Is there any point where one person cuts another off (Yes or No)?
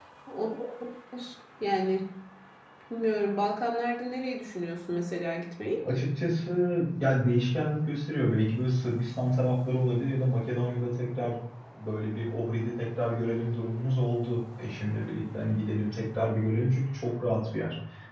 No